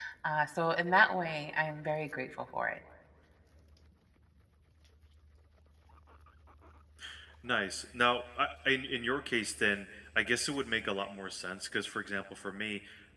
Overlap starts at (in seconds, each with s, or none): none